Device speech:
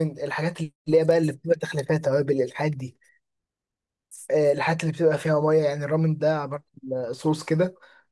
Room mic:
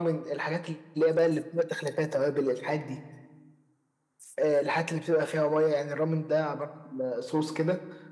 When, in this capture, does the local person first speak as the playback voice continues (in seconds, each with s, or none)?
none